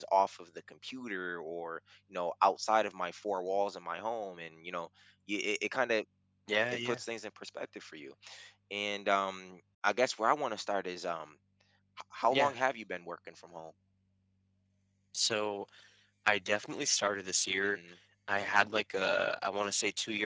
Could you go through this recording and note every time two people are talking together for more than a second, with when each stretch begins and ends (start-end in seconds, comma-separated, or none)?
none